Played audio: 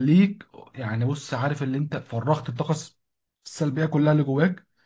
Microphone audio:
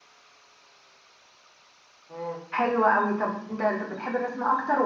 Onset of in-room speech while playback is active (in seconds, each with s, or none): 2.1 s